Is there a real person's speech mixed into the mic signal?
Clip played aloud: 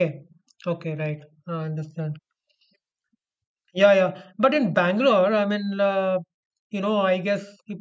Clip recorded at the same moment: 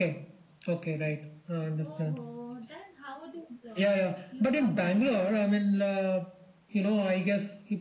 Yes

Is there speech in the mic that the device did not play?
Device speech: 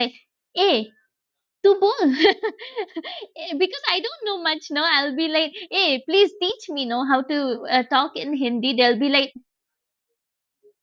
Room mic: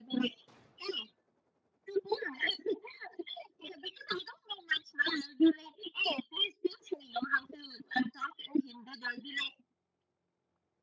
No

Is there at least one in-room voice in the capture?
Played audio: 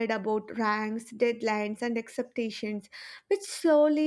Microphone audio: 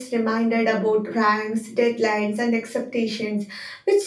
No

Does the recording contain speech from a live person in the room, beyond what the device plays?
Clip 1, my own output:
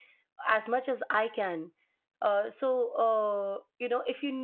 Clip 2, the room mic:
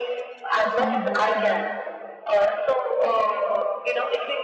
Yes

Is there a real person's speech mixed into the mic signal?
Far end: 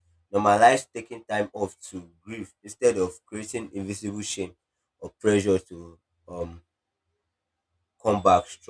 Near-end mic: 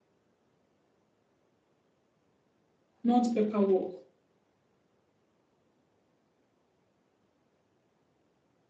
Yes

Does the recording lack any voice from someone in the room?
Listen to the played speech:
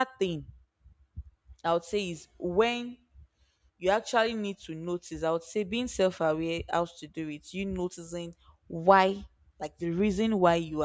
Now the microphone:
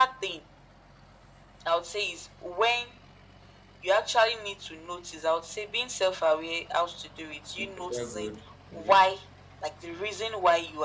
No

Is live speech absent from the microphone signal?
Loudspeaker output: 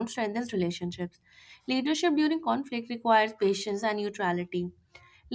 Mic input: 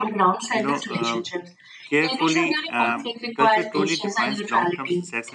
No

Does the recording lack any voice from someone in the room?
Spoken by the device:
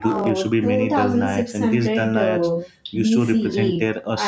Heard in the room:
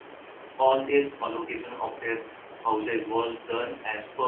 No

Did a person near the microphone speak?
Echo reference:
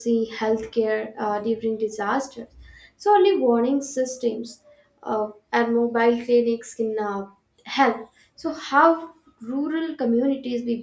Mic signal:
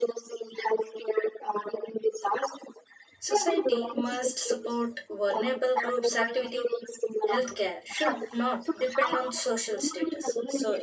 Yes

